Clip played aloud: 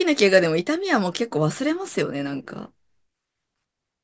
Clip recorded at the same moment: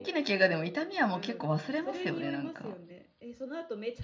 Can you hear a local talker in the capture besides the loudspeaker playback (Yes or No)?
Yes